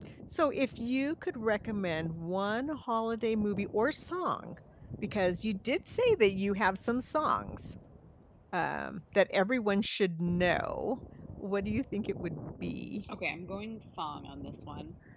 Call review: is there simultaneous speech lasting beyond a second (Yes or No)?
No